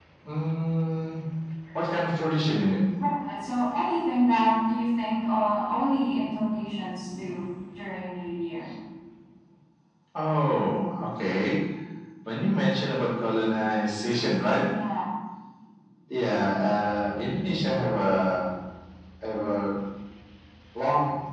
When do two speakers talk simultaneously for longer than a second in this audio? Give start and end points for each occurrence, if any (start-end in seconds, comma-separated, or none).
none